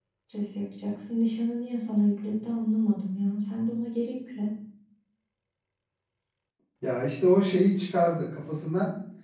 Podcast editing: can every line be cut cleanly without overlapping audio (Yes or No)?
Yes